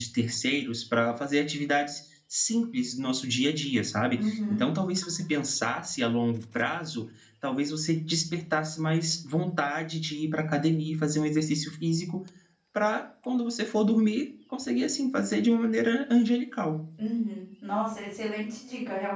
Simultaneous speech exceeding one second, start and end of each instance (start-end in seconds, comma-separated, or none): none